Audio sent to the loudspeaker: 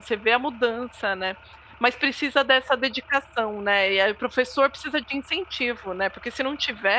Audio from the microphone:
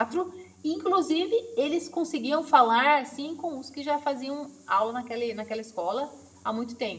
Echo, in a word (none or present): none